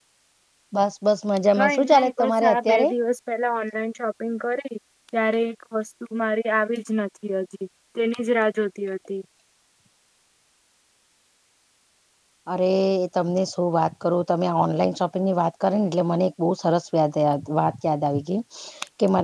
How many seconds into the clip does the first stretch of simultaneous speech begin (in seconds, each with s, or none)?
1.6 s